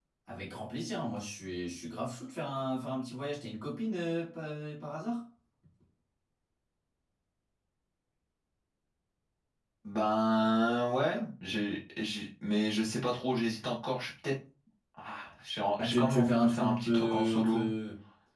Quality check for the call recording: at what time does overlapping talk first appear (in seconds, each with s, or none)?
15.8 s